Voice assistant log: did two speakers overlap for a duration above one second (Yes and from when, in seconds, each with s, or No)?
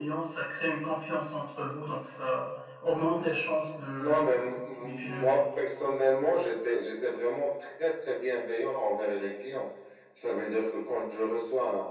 Yes, from 4.0 s